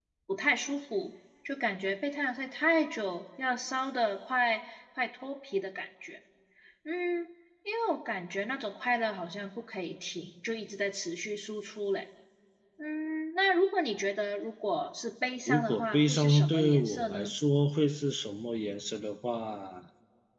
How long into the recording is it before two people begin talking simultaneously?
15.5 s

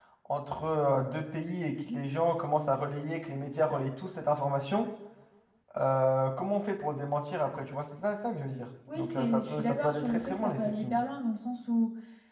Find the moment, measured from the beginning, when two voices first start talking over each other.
8.9 s

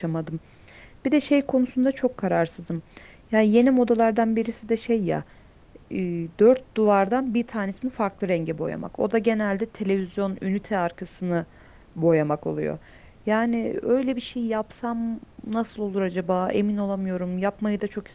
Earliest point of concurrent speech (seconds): none

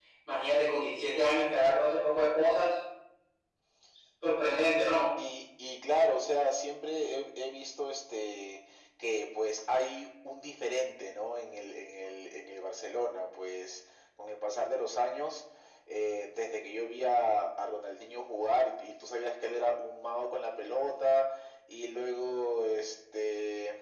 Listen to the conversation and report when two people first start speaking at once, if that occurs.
none

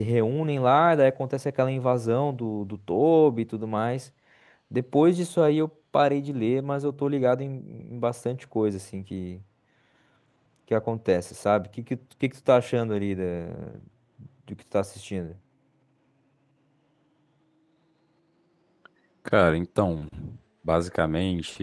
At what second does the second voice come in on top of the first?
none

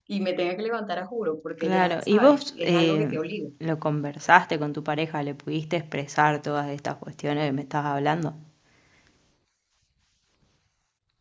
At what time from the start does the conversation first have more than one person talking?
1.6 s

